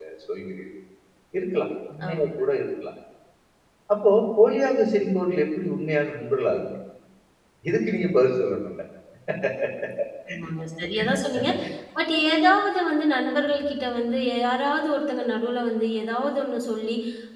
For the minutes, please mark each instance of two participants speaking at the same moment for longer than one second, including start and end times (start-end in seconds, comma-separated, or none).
none